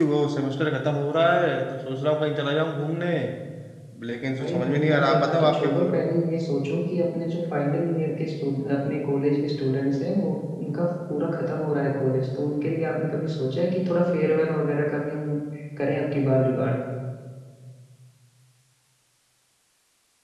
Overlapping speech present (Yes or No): Yes